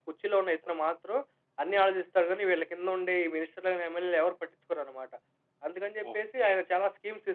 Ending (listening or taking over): listening